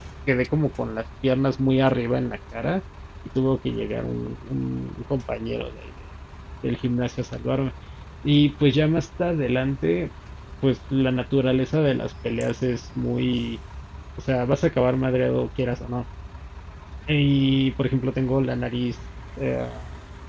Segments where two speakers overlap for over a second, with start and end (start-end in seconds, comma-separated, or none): none